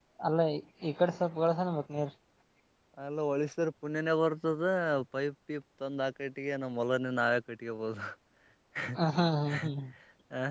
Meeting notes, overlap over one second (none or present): none